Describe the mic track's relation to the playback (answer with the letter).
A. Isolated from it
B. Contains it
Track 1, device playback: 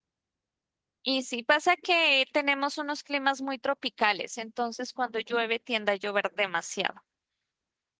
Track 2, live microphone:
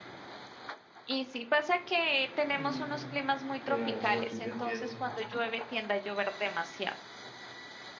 B